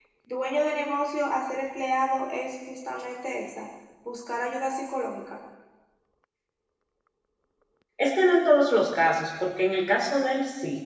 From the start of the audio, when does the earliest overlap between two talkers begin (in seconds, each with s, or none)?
none